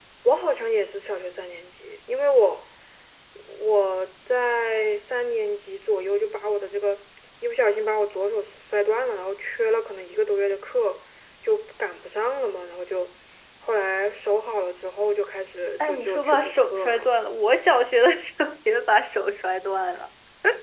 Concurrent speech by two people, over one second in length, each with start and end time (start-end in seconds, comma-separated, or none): 15.9-17.1